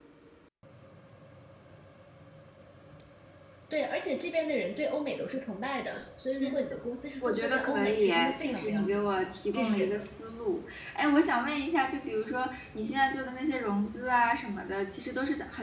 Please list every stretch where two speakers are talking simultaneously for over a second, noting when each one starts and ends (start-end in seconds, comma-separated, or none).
7.2-10.1